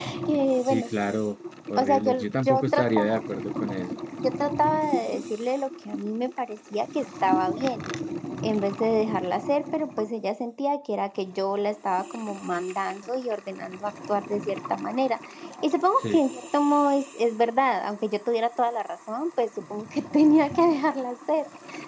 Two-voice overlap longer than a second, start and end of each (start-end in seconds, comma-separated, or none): 1.8-3.2